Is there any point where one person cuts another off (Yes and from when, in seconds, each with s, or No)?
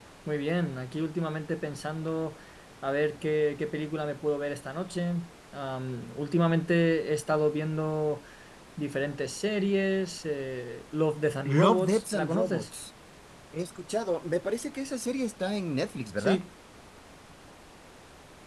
Yes, from 11.4 s